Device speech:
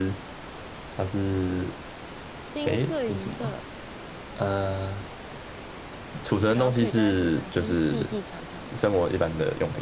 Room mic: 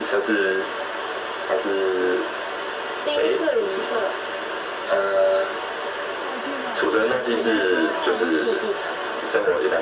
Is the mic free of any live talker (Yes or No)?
No